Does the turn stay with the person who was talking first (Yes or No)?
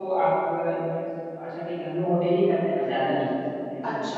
No